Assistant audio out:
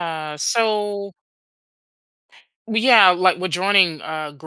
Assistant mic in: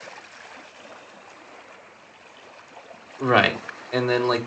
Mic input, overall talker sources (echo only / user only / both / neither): user only